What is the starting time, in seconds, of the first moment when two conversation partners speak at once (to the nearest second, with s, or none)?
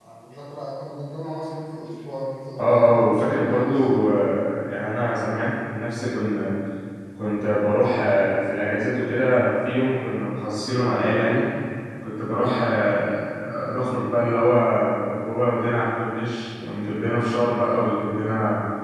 3 s